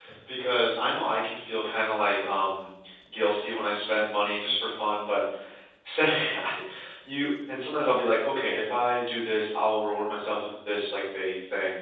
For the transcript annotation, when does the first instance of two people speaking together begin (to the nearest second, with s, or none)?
none